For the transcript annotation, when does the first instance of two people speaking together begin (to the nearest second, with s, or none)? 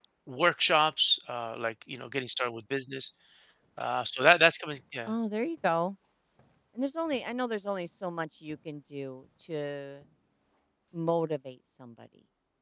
none